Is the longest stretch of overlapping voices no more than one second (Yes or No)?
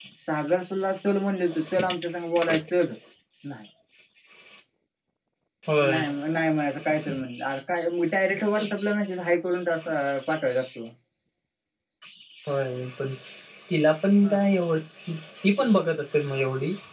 Yes